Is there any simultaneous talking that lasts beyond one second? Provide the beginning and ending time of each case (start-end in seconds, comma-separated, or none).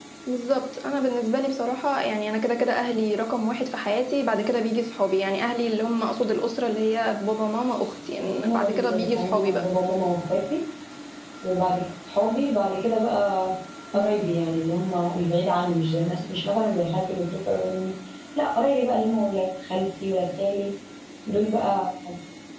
8.4-9.6